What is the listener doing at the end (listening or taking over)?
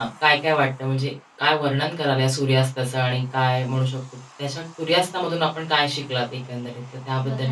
taking over